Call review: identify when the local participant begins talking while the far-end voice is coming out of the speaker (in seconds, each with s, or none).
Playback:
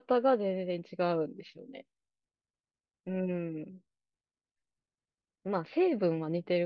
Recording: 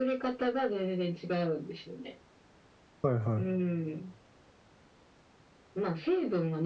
3.0 s